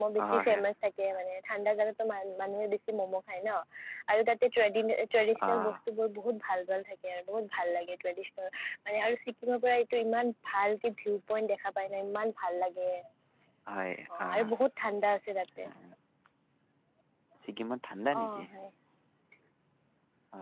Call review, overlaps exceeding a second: none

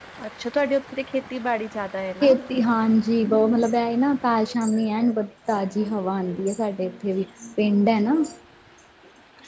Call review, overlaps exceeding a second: none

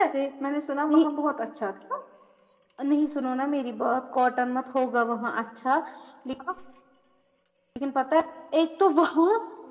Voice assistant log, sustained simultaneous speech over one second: none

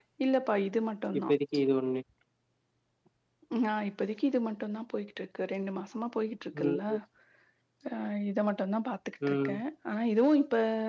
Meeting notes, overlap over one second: none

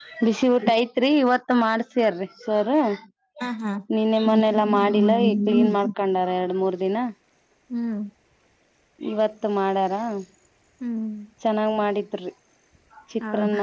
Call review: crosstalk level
present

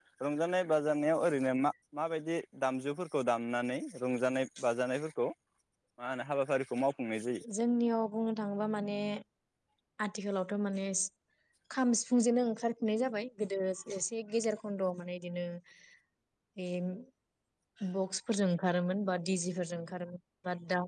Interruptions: none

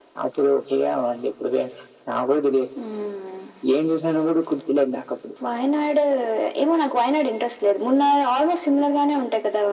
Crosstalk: none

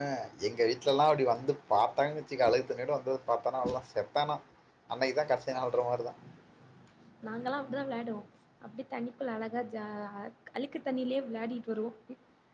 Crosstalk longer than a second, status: none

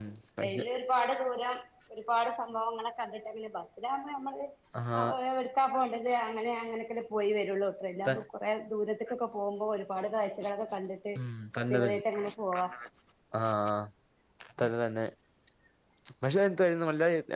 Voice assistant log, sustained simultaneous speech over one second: none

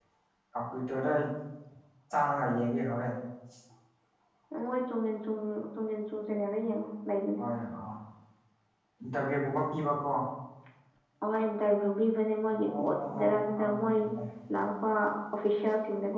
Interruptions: present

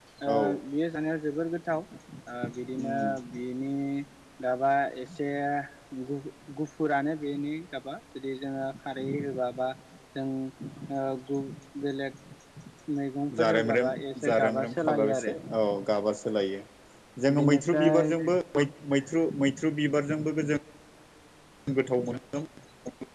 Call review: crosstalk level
present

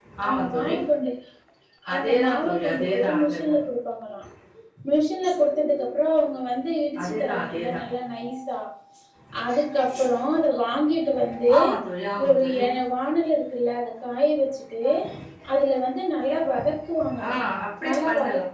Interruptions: present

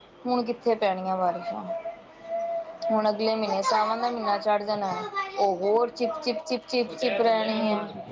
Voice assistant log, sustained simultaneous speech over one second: none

